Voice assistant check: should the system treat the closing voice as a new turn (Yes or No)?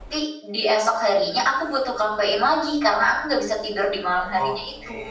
Yes